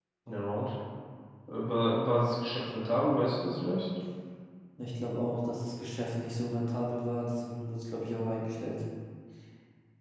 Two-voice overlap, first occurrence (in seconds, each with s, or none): none